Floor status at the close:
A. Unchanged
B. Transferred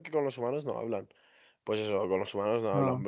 A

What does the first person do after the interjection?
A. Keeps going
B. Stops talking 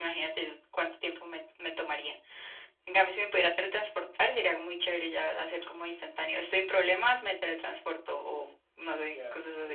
B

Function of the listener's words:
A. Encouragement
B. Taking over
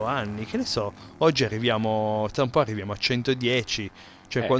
A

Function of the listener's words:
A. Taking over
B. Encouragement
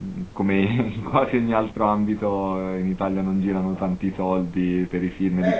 A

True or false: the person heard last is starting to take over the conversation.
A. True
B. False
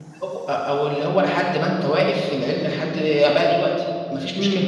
A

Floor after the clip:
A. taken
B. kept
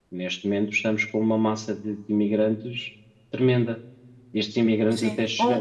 A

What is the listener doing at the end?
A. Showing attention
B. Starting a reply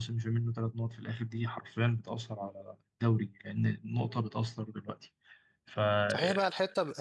B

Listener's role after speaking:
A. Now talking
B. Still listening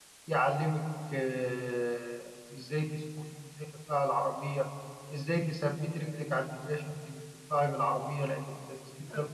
A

